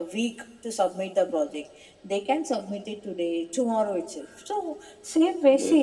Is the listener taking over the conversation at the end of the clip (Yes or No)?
No